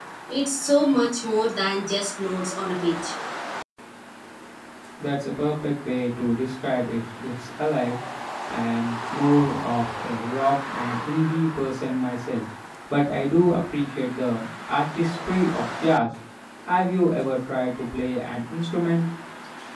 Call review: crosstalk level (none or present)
none